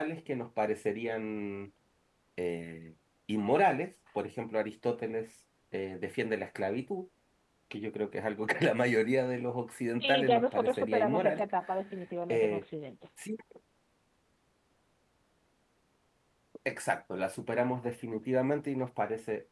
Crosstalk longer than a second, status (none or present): present